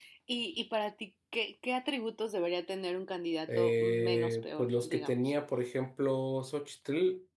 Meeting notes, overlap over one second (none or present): present